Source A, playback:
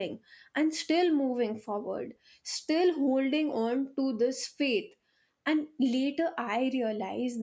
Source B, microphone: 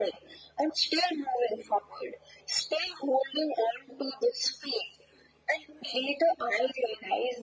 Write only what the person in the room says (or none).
none